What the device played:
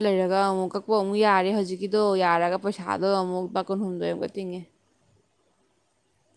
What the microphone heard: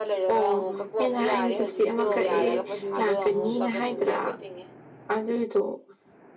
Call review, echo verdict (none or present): present